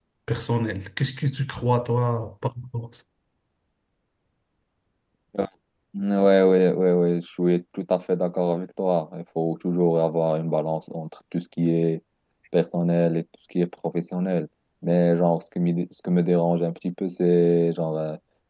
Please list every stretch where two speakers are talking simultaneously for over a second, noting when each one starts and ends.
none

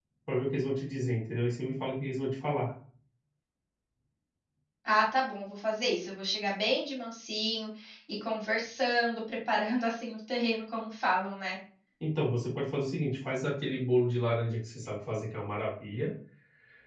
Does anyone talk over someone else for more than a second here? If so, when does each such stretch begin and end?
none

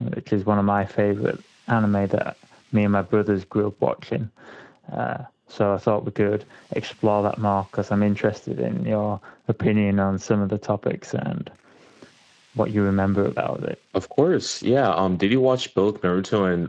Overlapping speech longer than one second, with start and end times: none

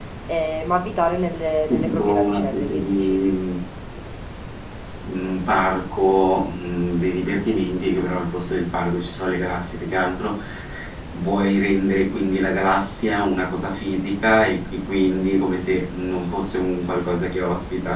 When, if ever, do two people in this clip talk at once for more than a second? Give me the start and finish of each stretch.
1.7-3.2

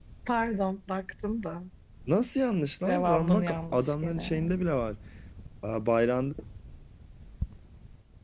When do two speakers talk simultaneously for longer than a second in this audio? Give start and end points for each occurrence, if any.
2.9-4.6

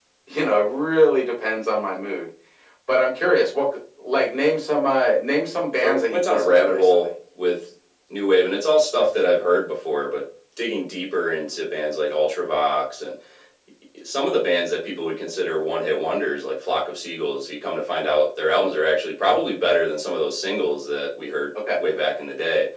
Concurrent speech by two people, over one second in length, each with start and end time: 5.8-7.1

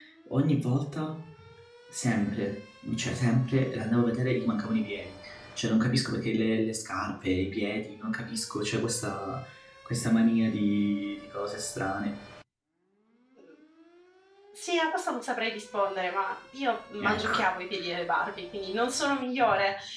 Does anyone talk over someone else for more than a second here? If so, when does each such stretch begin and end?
none

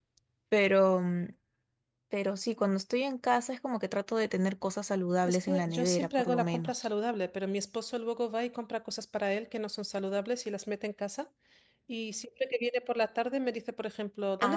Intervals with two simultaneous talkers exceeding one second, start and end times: 5.2-6.9

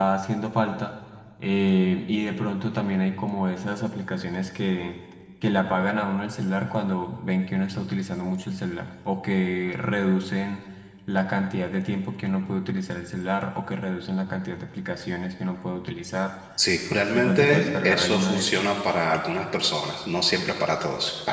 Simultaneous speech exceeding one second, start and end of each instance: 17.1-18.6

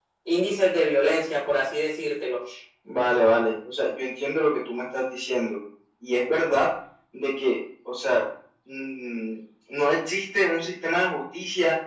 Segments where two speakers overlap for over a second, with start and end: none

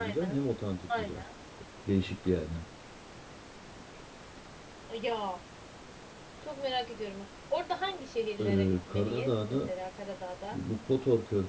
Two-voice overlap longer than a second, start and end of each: 8.4-9.7

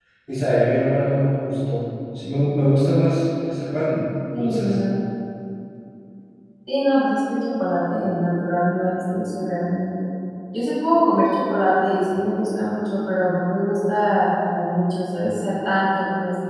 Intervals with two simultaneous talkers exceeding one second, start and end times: none

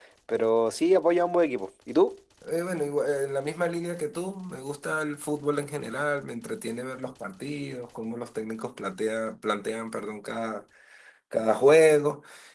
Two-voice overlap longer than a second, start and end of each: none

